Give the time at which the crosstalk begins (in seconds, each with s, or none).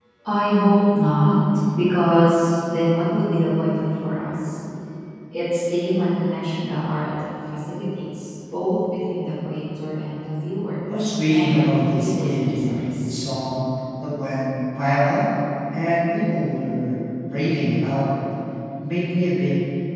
11.3 s